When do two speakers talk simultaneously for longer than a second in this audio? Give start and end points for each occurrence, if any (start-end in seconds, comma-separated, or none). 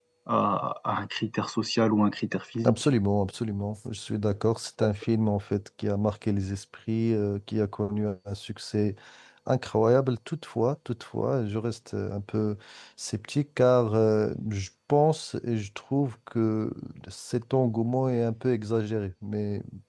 none